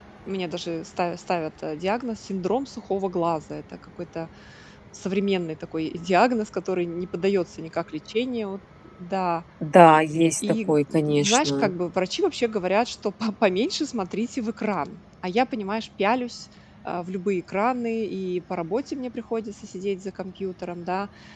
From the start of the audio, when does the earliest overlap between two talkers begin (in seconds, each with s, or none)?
10.4 s